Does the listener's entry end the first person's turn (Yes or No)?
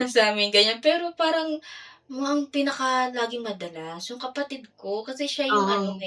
No